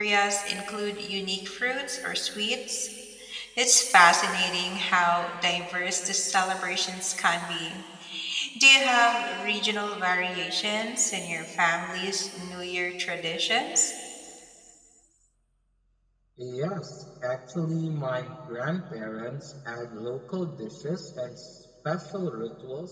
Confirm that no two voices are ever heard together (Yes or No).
Yes